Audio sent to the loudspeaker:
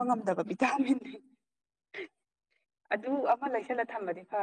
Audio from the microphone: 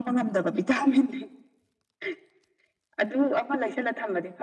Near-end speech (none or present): none